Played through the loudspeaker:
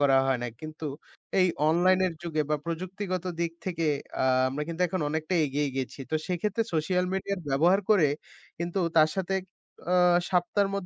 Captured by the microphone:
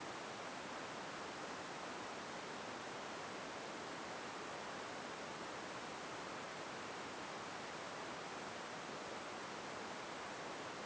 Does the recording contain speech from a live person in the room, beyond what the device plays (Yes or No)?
No